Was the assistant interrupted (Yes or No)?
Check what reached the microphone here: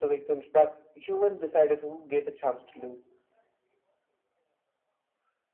No